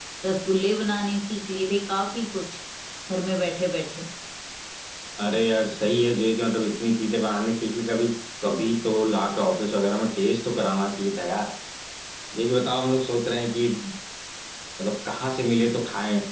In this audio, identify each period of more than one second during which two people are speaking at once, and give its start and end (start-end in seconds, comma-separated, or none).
none